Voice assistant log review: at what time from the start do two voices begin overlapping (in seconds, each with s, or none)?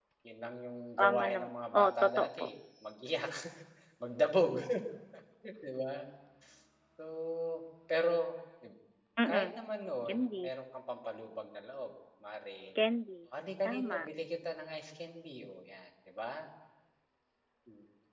1.0 s